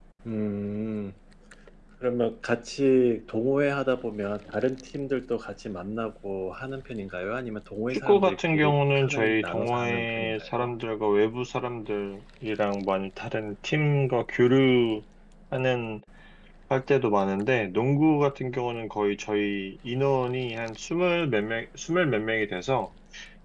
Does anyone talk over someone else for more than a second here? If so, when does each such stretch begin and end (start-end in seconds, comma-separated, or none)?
7.9-10.7